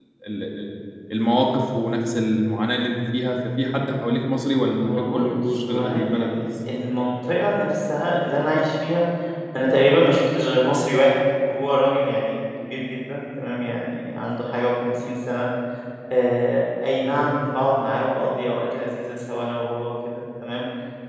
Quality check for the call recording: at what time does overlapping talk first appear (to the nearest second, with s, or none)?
5 s